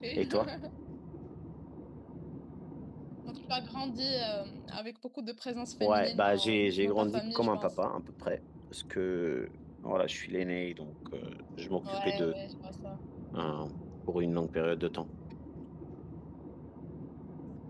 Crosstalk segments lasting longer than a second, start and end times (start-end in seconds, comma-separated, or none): 5.8-7.8